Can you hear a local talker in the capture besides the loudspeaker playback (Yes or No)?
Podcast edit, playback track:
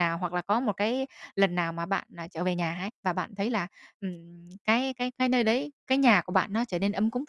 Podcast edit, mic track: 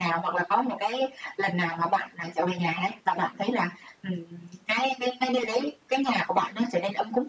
No